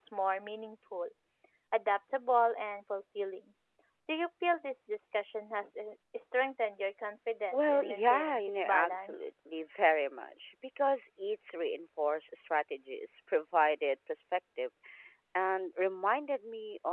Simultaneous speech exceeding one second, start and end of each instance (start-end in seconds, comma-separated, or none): 7.5-9.3